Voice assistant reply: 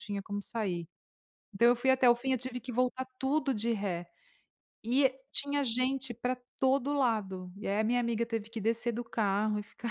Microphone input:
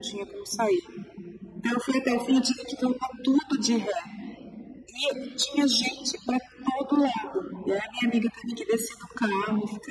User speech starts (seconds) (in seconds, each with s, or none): none